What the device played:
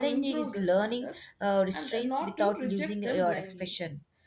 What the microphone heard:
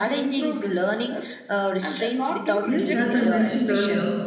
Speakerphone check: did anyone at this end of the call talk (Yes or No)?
Yes